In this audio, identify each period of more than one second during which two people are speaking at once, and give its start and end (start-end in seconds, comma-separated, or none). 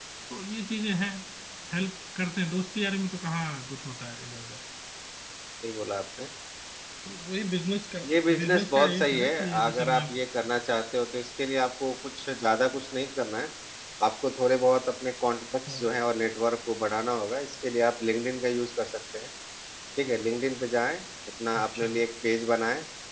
8.4-10.1